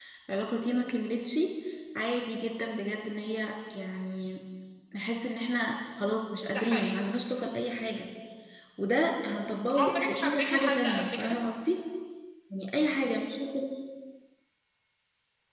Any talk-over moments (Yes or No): Yes